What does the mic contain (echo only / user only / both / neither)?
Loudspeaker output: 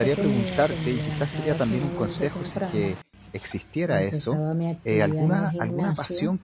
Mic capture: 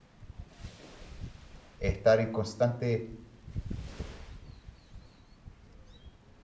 user only